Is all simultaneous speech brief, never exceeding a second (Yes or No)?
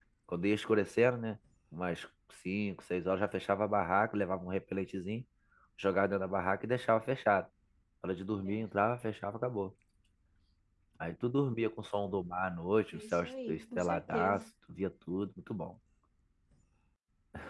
No